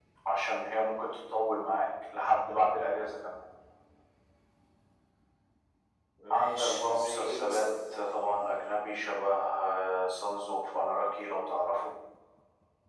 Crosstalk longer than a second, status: present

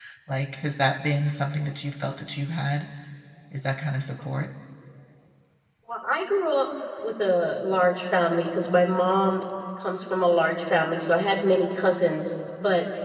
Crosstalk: none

